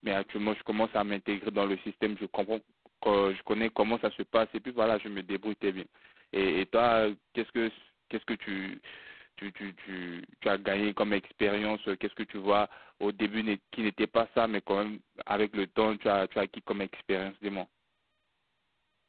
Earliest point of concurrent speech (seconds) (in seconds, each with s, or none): none